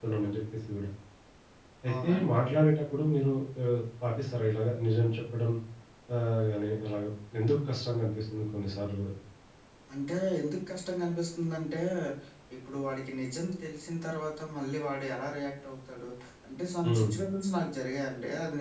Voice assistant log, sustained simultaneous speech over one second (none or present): none